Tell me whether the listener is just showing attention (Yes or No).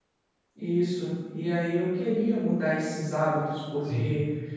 Yes